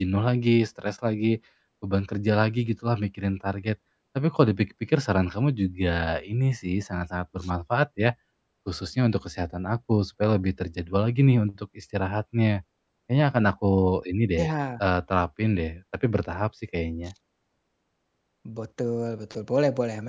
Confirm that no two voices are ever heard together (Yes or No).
Yes